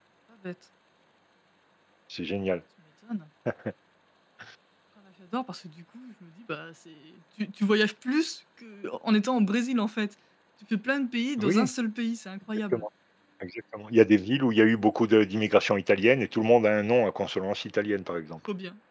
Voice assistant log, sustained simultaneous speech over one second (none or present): none